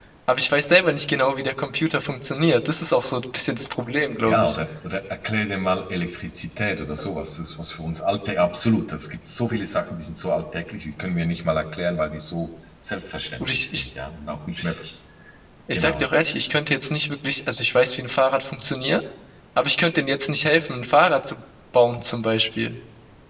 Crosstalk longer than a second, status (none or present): none